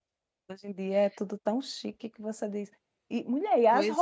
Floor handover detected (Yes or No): No